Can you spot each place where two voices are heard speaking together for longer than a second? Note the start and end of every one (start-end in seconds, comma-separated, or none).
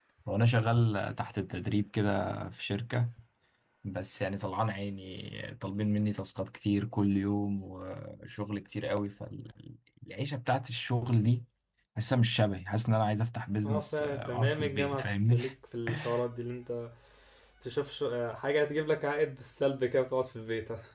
13.6-15.4